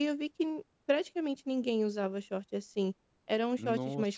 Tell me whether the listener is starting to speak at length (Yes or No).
No